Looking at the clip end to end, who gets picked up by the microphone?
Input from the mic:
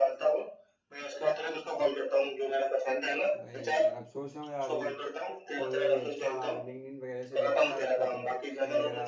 both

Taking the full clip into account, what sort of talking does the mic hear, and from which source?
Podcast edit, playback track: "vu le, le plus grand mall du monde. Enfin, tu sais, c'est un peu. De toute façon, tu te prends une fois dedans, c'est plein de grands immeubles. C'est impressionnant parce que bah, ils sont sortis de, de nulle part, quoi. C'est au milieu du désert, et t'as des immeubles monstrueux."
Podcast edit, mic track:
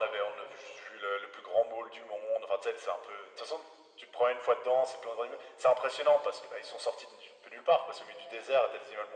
echo only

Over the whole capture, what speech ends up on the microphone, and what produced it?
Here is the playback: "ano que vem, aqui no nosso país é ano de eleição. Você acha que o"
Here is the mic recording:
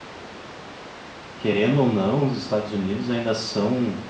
user only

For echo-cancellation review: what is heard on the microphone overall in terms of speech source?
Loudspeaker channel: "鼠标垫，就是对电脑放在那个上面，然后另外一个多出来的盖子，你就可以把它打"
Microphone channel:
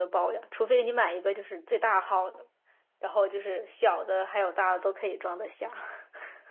user only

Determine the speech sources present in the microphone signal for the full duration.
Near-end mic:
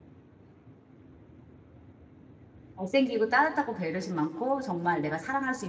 user only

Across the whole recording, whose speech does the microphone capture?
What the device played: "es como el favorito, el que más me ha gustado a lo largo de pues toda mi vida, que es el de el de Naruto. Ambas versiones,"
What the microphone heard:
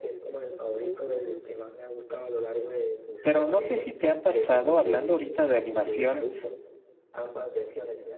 both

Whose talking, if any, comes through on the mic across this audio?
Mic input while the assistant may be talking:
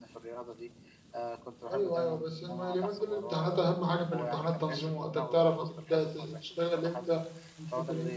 both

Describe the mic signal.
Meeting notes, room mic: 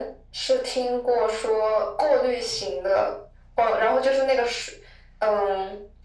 echo only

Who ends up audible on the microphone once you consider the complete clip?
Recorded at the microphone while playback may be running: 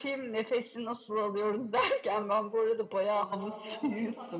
both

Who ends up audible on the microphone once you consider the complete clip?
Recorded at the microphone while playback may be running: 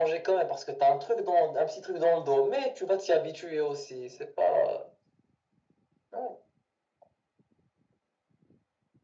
echo only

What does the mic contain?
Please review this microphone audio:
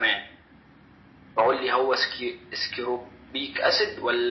echo only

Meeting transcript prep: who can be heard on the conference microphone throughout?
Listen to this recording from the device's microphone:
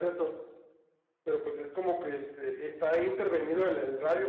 echo only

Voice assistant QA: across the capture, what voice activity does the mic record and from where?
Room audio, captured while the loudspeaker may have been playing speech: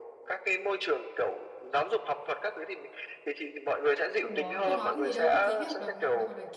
both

